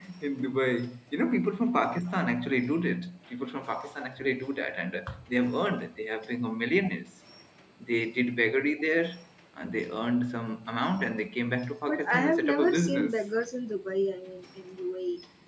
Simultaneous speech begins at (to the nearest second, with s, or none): 12 s